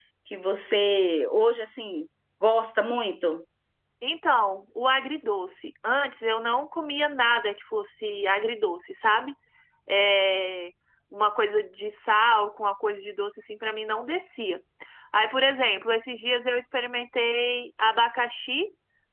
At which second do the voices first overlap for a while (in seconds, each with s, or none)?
none